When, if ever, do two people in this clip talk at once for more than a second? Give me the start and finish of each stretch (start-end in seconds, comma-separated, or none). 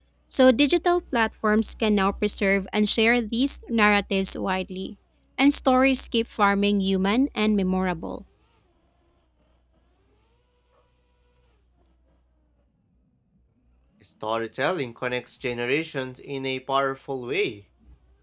none